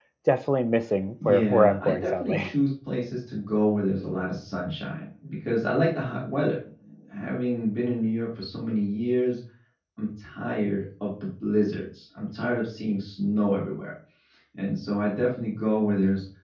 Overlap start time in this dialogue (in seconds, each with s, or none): 1.2 s